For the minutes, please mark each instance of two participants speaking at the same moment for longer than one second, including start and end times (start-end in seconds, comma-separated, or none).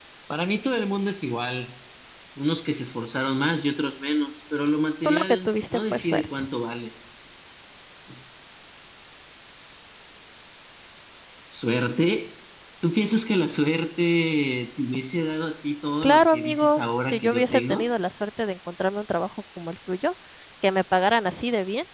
5.0-6.5, 16.0-17.9